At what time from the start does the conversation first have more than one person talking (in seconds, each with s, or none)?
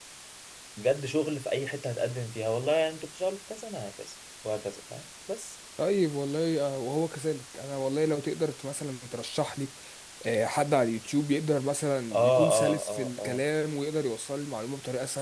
12.1 s